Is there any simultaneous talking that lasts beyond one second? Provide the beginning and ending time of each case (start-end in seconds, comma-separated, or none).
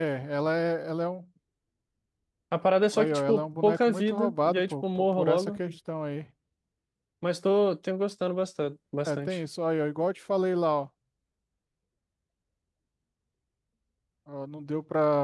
2.9-5.6